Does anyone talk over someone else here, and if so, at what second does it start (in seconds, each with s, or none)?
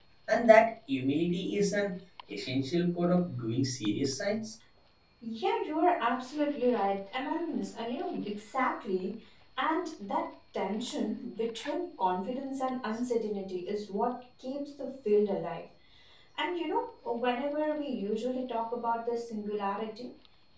none